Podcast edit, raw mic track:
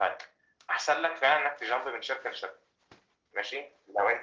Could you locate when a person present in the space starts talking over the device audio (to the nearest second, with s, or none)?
none